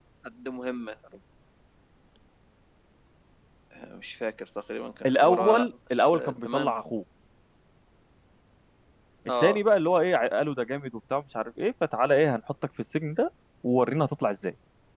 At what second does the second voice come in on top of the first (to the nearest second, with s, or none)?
5 s